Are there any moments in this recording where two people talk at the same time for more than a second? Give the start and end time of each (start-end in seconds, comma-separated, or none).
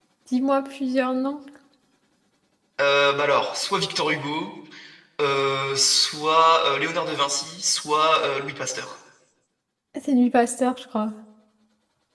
none